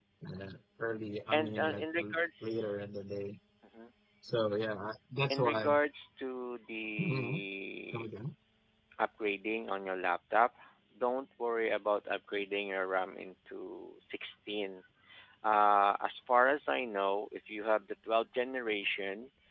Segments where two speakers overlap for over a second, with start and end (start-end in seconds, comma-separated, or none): 1.3-2.6